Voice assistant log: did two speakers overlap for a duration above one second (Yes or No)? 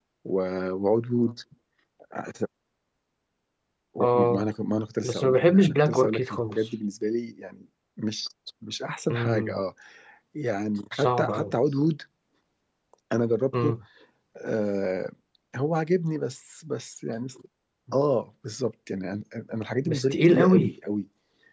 Yes